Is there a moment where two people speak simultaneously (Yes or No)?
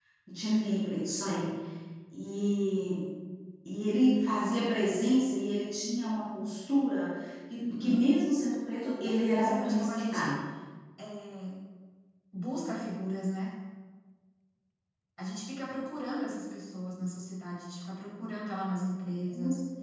Yes